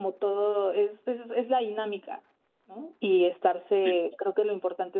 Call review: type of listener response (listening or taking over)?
listening